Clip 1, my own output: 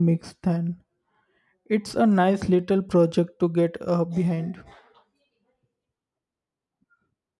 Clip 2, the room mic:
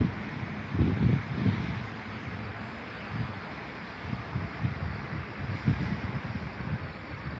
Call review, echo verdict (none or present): none